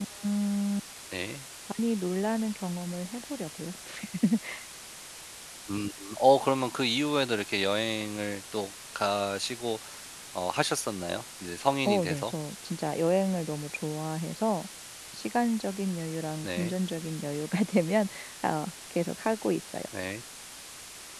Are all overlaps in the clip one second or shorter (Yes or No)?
Yes